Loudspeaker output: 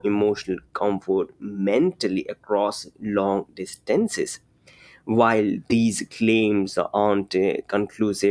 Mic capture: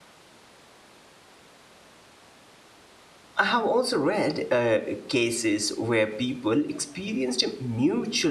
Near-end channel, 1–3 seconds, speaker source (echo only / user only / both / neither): neither